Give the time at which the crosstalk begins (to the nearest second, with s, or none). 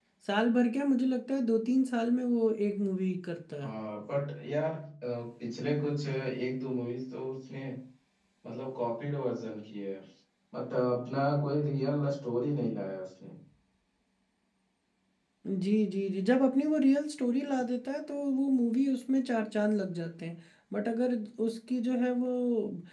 none